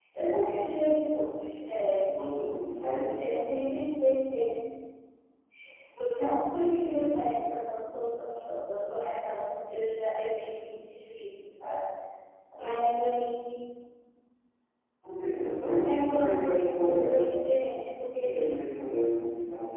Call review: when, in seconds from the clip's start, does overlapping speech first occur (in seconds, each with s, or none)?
15.8 s